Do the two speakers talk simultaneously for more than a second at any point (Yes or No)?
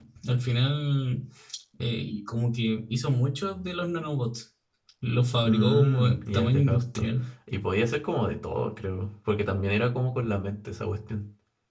Yes